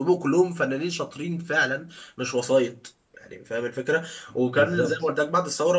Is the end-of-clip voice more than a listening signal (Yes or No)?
No